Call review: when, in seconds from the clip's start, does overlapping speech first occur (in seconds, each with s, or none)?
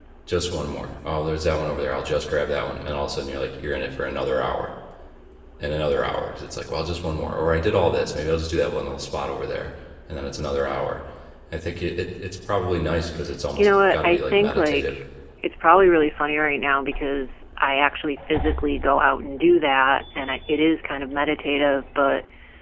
13.5 s